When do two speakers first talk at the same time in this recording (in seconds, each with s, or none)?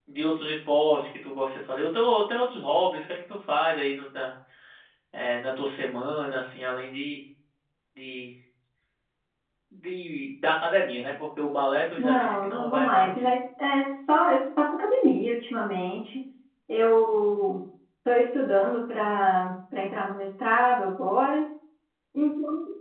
12.0 s